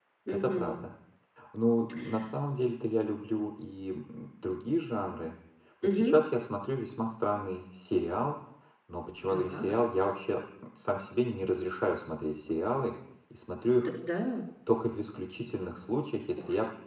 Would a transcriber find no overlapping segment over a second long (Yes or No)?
Yes